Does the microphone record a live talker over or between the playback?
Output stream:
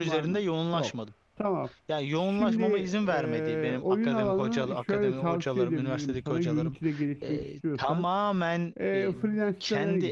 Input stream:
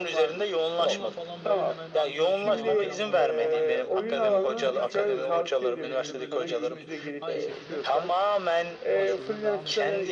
Yes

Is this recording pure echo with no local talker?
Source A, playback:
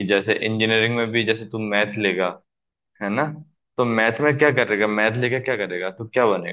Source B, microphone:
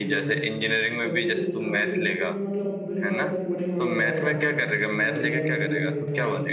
No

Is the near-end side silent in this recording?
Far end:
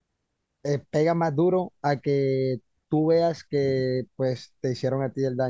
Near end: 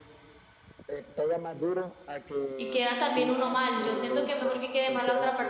No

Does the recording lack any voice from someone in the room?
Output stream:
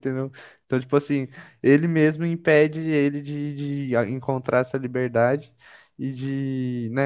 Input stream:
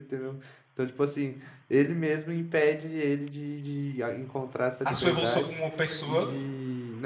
No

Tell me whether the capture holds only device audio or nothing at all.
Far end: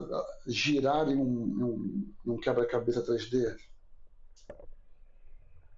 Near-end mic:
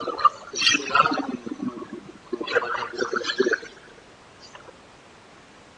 Yes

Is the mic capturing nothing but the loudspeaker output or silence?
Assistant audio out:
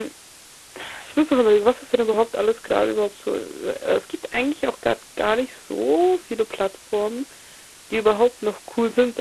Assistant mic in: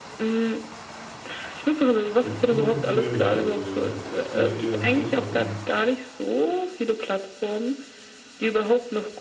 No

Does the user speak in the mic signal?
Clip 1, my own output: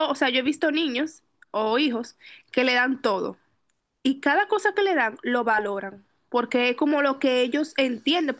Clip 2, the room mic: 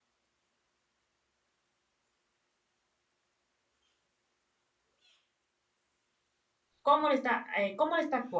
Yes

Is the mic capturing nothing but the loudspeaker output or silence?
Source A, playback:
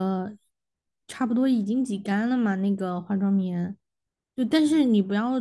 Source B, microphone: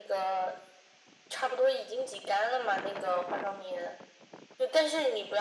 Yes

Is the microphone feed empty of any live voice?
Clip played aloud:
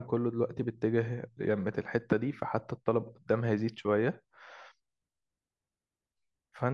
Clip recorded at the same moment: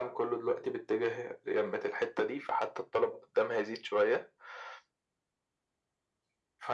Yes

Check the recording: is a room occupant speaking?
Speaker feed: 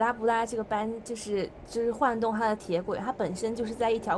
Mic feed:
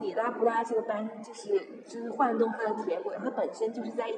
No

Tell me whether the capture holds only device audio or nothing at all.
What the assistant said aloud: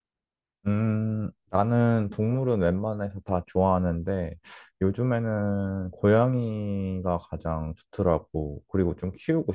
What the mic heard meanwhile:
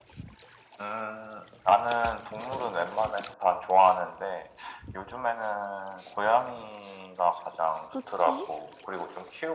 No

